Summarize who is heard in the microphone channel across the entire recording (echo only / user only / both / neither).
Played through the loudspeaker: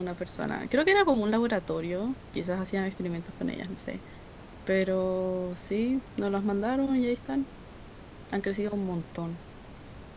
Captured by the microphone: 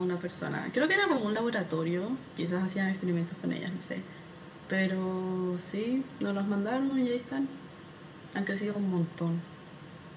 echo only